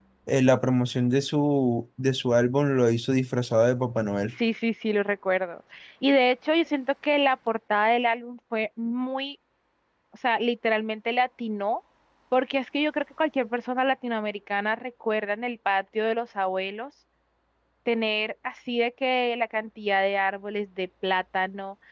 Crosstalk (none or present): none